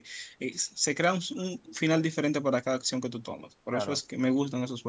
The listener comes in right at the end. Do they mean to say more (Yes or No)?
No